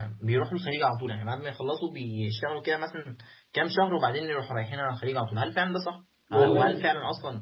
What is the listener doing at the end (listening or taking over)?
listening